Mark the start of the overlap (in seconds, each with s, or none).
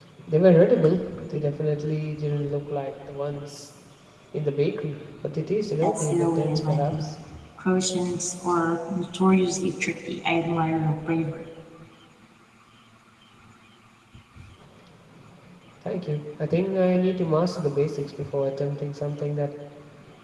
5.8 s